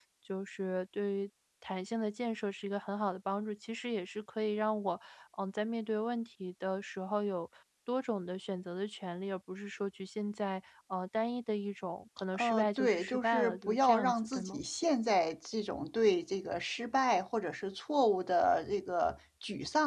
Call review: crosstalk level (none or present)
present